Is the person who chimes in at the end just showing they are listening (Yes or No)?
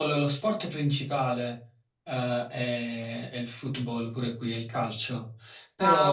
Yes